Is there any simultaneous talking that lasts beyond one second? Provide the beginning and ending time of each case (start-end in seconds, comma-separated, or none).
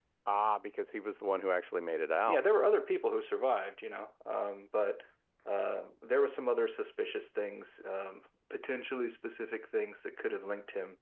none